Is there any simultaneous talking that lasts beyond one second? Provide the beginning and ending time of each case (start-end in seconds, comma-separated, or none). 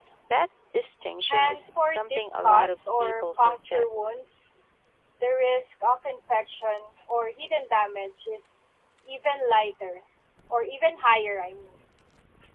1.3-3.9